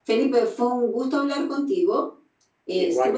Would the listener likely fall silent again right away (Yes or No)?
Yes